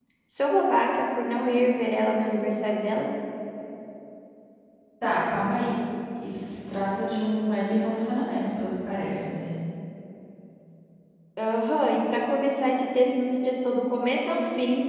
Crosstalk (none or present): none